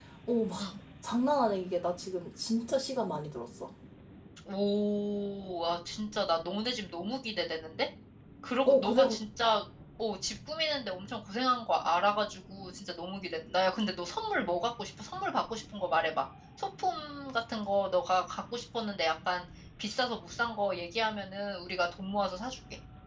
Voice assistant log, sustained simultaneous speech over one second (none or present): none